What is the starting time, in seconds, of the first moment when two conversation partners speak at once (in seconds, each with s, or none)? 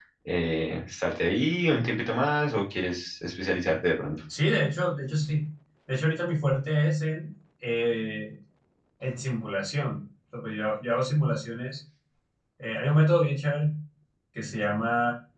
none